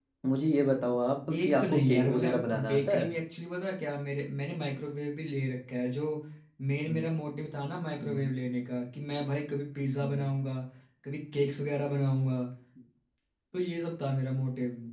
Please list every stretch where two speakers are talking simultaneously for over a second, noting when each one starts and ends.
1.3-3.1

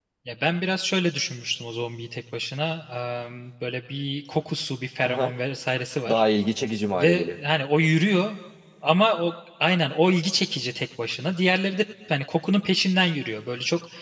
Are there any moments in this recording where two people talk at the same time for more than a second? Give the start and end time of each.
none

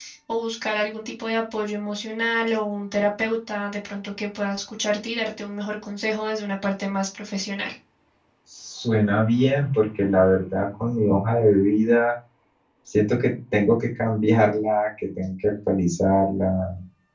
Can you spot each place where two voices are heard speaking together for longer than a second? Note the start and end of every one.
none

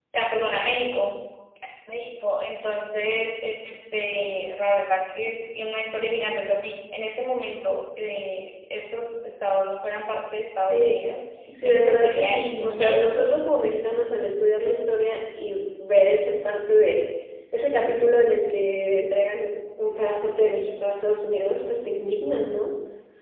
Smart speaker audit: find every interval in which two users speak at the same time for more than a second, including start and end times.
11.6-13.3

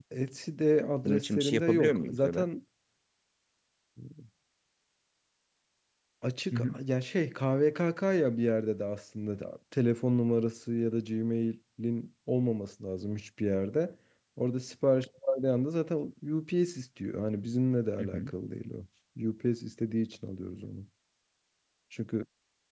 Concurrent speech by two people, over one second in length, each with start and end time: 1.0-2.4

